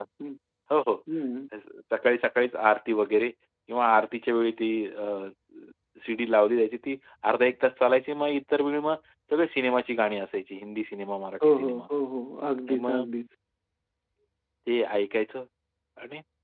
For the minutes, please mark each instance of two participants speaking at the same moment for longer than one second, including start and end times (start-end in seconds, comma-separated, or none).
none